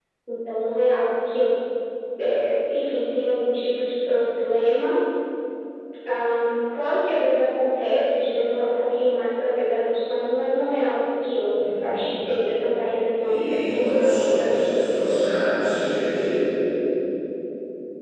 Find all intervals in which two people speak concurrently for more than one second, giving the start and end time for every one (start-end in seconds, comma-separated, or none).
13.2-14.9